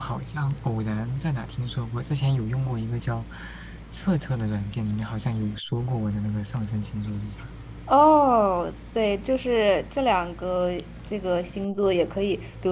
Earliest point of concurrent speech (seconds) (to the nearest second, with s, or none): none